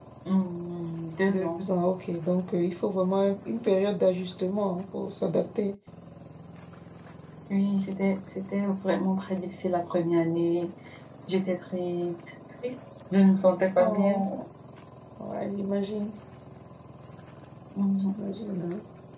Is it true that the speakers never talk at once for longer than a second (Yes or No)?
Yes